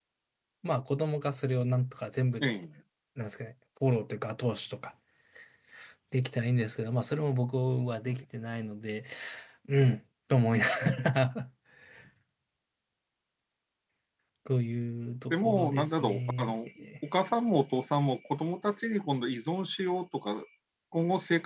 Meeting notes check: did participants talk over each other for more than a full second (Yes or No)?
Yes